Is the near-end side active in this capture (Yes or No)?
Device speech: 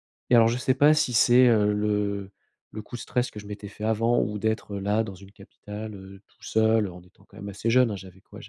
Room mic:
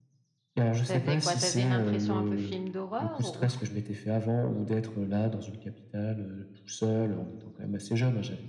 Yes